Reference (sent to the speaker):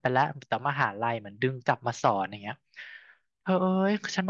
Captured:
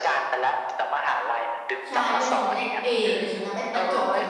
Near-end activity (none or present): present